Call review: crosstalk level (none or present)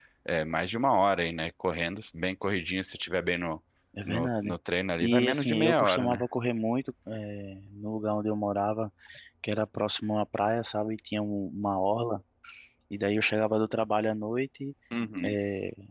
present